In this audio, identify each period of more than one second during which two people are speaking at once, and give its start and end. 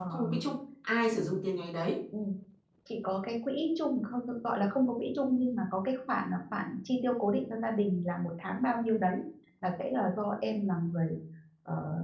none

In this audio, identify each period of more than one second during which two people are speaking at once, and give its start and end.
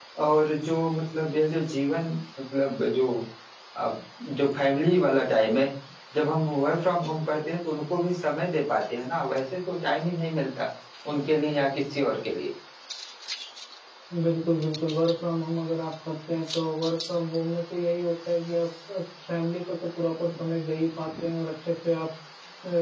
none

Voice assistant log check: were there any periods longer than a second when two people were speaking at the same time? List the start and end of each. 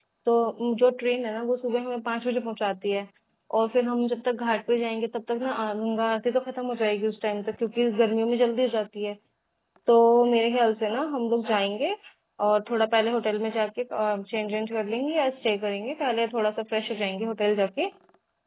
none

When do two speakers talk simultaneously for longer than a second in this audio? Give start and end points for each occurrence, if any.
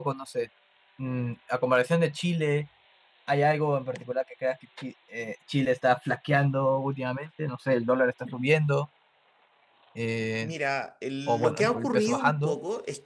11.3-12.6

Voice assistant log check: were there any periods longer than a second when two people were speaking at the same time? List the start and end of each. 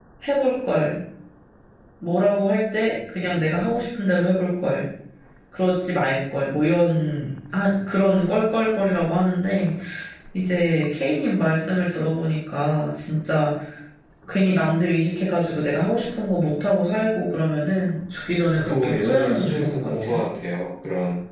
18.5-20.2

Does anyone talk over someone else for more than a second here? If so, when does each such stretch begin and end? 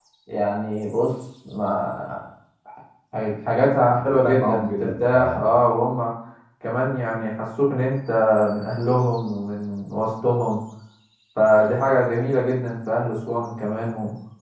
4.0-5.5

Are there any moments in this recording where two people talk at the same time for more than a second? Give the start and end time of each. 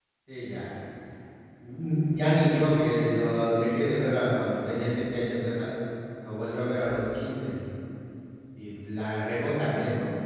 none

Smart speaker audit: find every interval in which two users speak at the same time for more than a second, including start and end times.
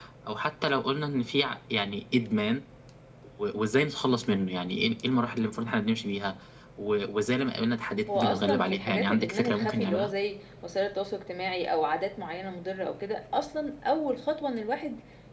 8.1-10.1

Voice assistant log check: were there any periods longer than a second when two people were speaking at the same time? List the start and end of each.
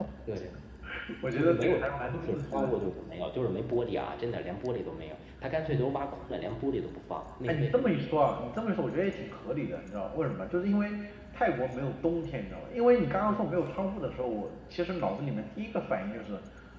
1.3-2.7

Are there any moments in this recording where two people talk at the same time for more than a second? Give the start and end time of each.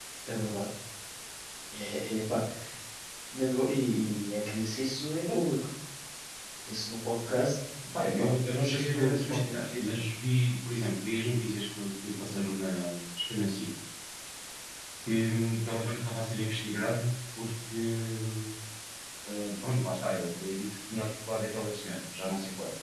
8.2-9.8

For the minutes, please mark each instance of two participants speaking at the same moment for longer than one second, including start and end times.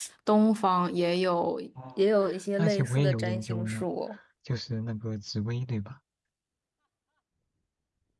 2.6-3.9

